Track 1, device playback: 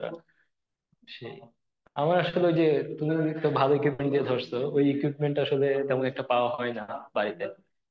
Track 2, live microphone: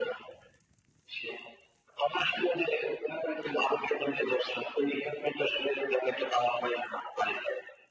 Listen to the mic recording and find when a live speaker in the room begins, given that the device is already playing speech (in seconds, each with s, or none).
none